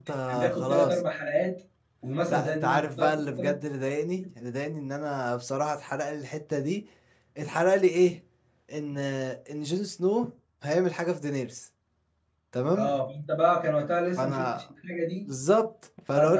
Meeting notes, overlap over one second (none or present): present